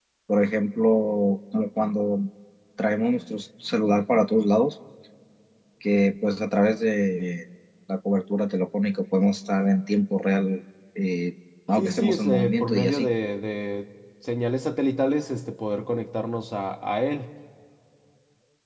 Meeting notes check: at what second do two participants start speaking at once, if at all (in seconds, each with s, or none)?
11.8 s